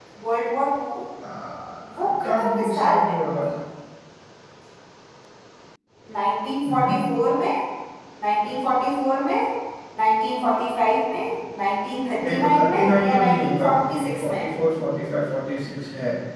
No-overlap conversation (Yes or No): No